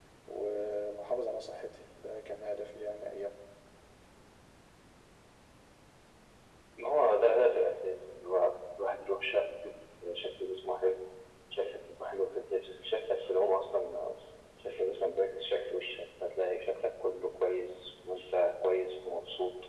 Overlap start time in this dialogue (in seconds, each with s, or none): none